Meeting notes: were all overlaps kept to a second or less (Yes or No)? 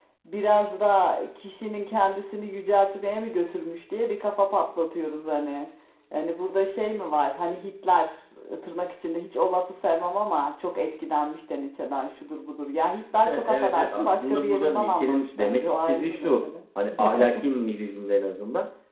No